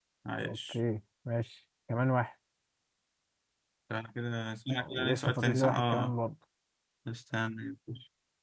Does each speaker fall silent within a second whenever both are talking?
No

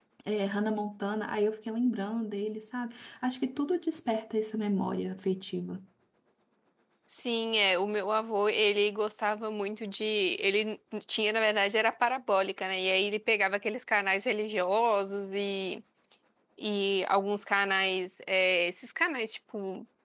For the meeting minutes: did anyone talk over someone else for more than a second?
No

